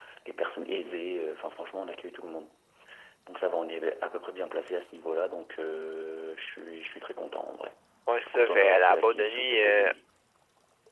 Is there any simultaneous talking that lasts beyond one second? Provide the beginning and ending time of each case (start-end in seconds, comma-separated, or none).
8.2-9.9